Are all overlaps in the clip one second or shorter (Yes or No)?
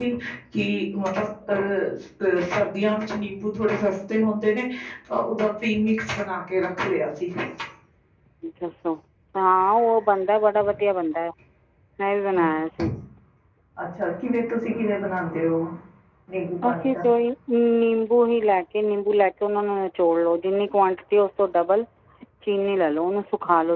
Yes